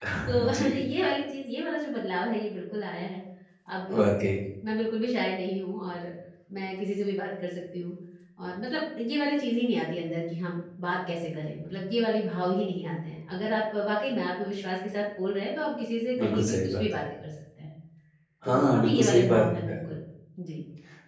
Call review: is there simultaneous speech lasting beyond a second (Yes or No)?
Yes